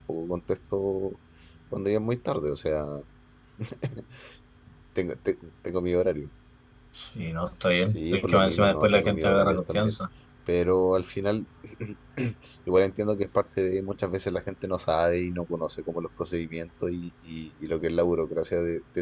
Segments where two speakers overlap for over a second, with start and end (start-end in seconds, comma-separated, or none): 7.9-9.9